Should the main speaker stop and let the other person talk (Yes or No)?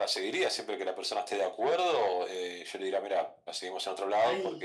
No